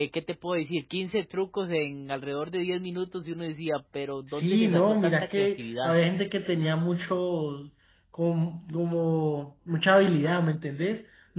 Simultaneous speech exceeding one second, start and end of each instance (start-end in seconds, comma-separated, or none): 4.3-5.9